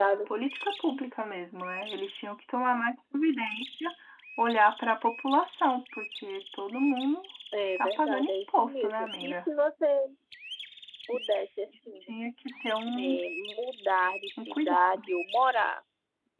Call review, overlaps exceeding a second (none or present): present